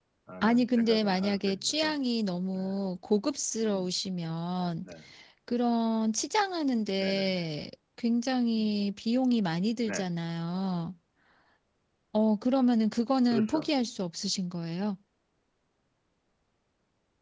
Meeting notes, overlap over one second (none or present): present